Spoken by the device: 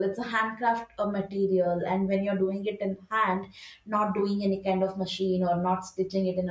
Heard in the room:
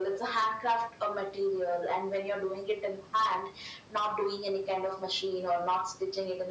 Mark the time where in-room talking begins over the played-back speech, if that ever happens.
none

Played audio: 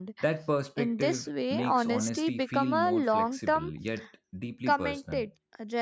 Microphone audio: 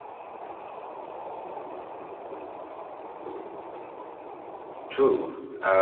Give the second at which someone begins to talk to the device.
4.9 s

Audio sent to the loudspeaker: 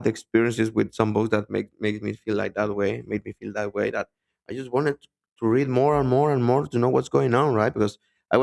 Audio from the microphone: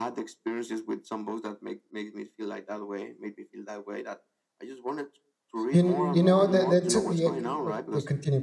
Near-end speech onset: 5.7 s

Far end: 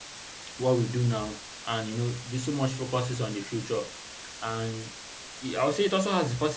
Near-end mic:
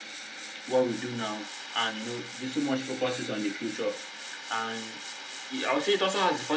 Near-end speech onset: none

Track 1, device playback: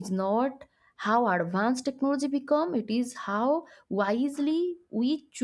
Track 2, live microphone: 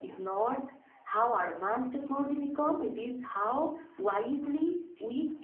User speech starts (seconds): none

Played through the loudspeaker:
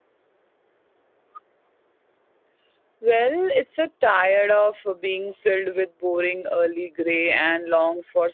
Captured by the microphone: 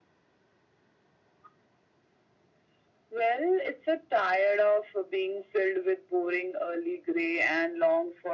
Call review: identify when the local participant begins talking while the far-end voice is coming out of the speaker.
none

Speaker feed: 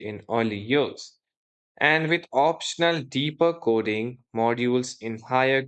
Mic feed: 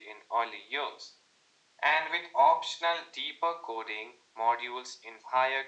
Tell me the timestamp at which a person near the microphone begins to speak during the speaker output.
none

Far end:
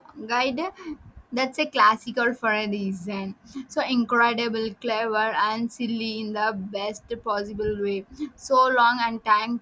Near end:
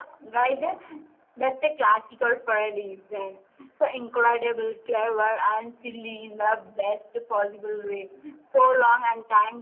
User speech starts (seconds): none

